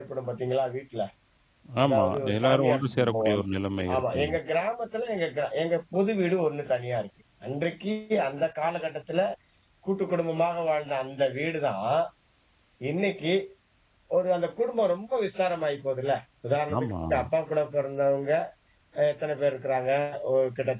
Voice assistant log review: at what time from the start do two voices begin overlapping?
1.8 s

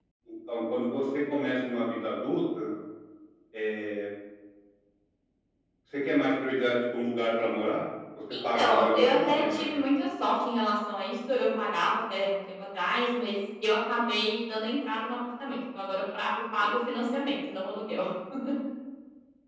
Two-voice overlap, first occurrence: 8.3 s

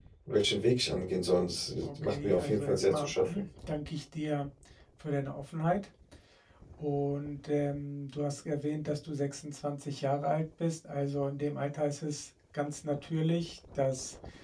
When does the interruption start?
1.8 s

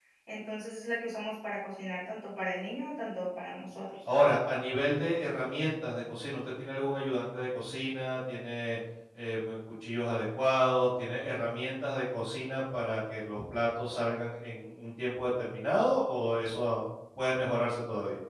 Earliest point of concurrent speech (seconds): none

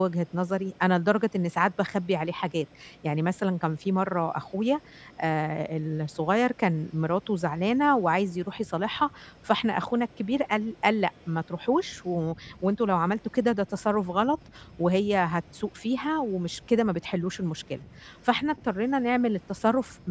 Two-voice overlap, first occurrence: none

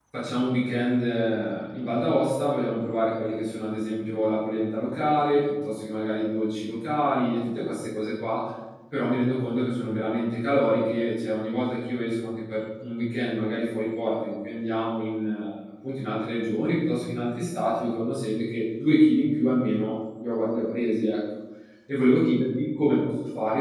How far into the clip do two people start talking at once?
none

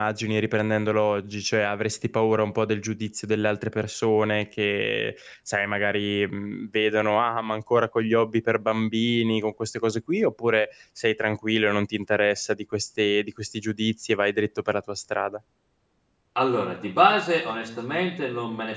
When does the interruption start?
none

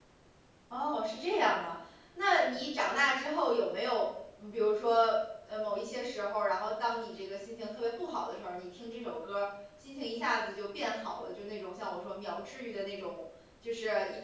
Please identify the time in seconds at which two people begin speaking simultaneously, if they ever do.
none

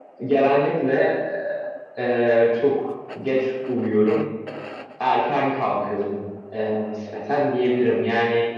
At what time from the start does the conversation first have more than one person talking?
none

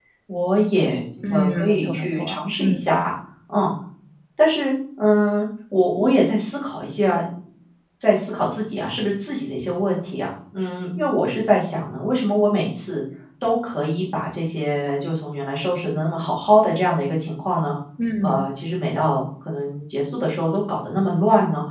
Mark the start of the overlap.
1.2 s

